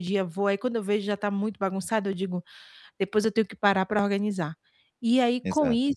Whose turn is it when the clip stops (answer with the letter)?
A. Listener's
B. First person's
B